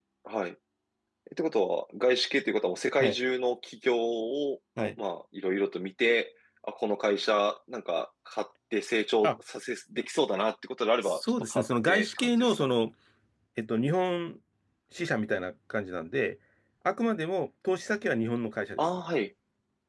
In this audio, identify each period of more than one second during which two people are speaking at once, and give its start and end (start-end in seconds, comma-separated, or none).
11.0-12.7